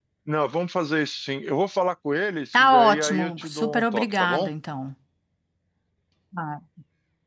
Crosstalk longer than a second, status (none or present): present